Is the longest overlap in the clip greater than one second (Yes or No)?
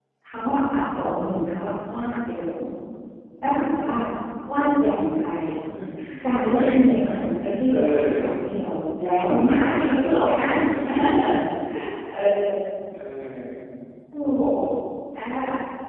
Yes